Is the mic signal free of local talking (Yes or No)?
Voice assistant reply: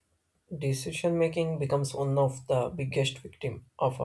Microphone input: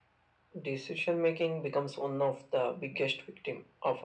Yes